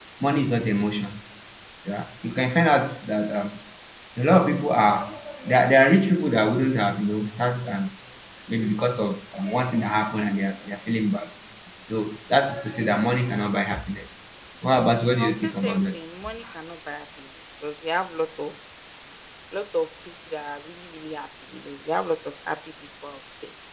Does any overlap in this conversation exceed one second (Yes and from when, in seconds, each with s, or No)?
Yes, from 14.7 s